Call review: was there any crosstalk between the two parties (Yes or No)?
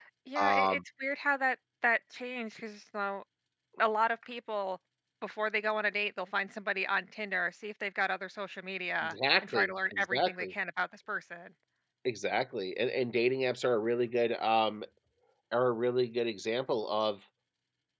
Yes